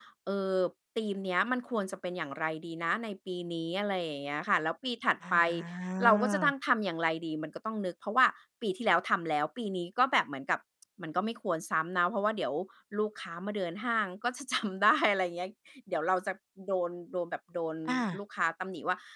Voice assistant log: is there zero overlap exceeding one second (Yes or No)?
Yes